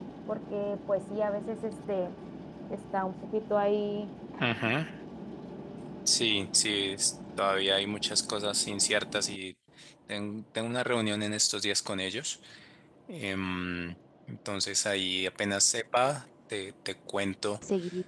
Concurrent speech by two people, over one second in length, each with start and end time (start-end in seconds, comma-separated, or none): none